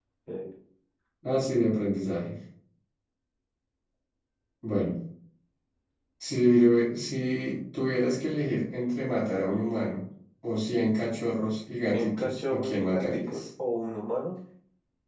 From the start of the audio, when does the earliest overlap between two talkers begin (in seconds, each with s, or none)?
11.9 s